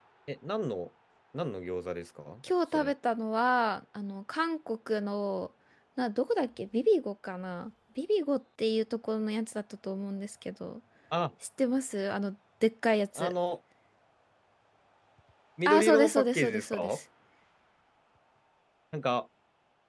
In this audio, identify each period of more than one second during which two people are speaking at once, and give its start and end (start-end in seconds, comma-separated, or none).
15.7-17.0